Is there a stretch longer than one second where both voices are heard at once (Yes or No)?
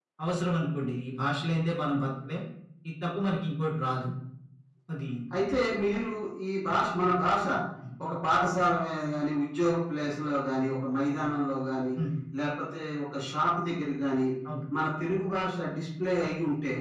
No